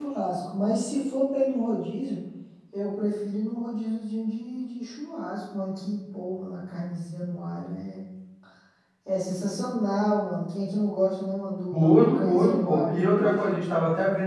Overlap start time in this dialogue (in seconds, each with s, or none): 11.7 s